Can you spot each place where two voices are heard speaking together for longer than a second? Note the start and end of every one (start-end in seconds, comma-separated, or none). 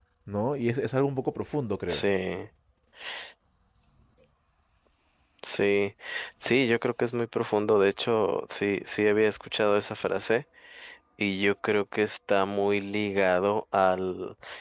none